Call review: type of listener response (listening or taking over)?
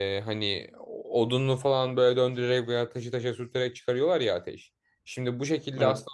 listening